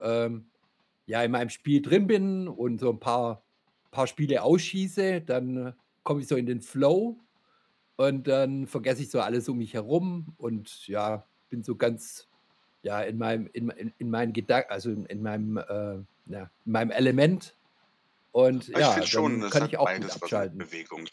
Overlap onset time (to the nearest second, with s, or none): 19 s